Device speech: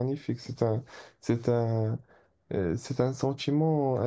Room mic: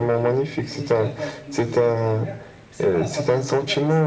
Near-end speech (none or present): present